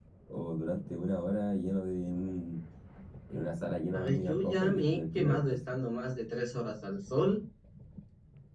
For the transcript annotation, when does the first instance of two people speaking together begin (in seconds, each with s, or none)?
3.9 s